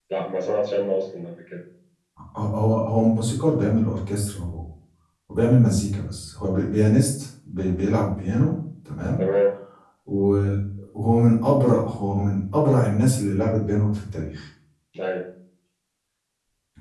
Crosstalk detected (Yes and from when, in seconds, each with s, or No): No